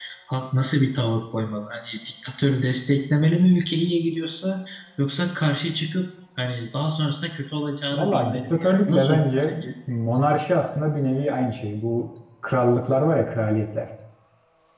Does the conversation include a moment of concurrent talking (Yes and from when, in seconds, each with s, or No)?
Yes, from 7.9 s